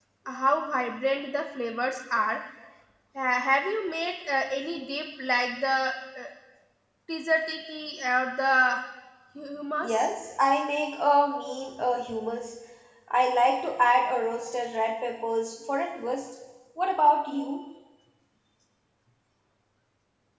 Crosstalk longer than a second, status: none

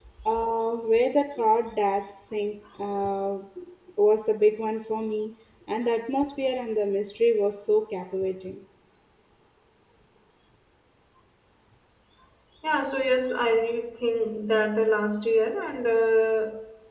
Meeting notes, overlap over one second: none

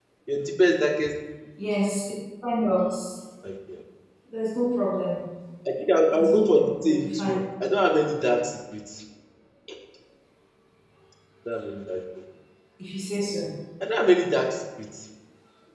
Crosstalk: present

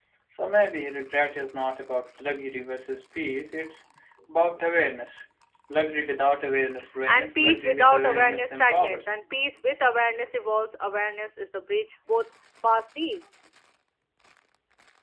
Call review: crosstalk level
present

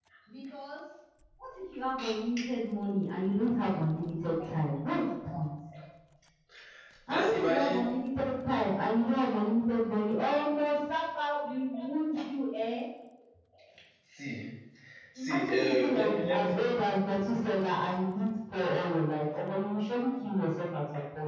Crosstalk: present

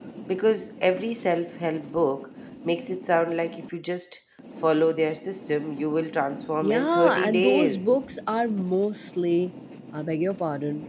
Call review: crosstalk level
present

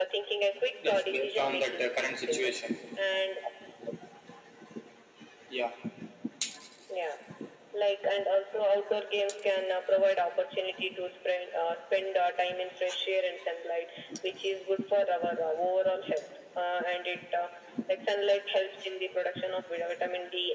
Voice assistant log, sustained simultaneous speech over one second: present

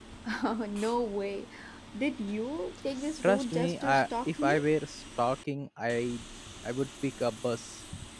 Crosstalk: present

